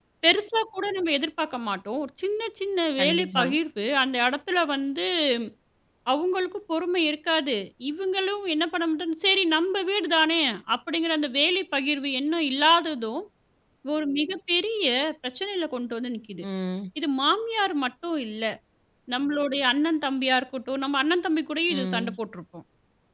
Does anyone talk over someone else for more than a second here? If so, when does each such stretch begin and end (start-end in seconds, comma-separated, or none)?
none